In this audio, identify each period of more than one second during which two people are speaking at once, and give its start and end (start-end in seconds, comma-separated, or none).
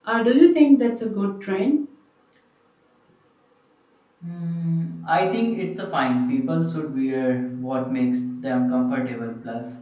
none